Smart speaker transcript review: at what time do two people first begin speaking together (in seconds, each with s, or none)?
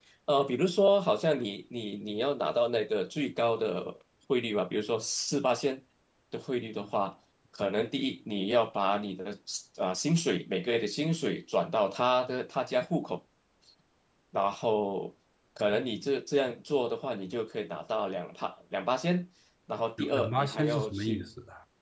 20.0 s